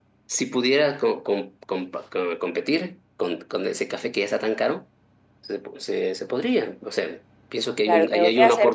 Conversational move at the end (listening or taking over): taking over